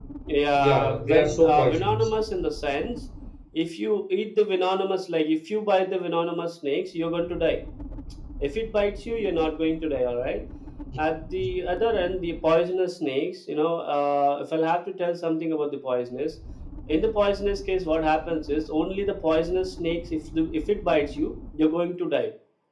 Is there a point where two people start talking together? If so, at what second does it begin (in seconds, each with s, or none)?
0.6 s